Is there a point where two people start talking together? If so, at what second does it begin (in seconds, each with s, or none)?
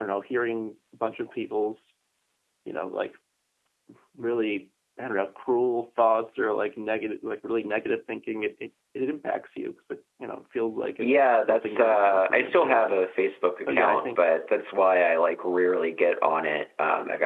11.0 s